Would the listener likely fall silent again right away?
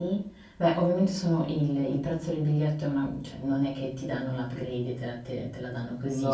No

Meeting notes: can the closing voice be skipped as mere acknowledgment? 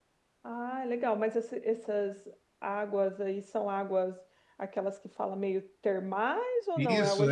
No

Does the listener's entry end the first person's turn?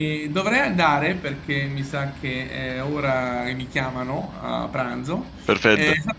No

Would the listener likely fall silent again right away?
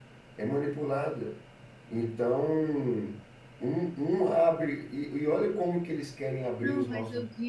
No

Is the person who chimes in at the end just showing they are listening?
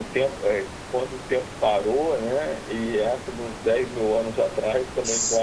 Yes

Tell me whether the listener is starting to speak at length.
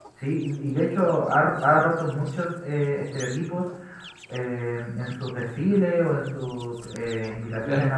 No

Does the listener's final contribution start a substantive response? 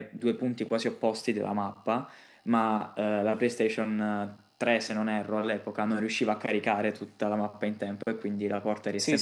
Yes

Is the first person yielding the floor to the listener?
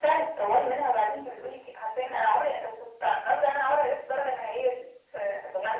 Yes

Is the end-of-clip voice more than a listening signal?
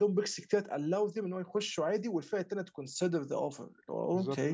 Yes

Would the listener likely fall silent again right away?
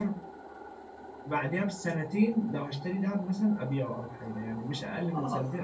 No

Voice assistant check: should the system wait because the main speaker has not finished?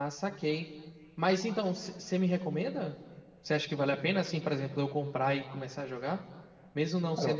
Yes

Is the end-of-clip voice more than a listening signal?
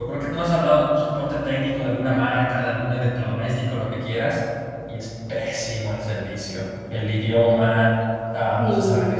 No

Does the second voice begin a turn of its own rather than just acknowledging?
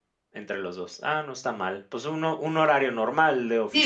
Yes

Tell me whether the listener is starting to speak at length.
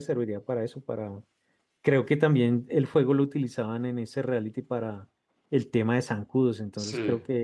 No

